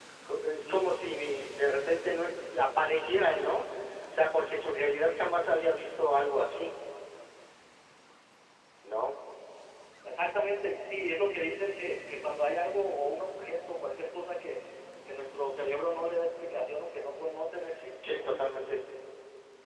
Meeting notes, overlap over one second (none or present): none